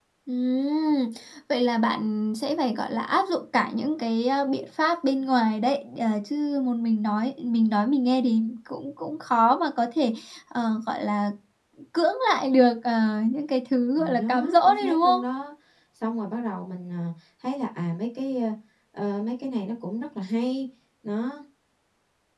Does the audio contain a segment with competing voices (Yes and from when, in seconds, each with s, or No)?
Yes, from 14.0 s